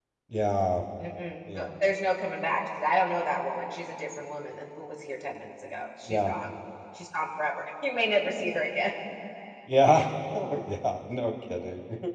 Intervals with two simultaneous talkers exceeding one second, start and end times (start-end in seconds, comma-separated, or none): none